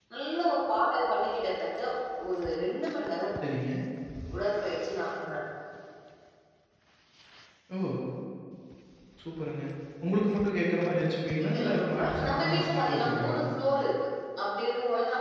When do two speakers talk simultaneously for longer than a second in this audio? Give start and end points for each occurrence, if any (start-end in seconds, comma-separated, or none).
11.5-13.4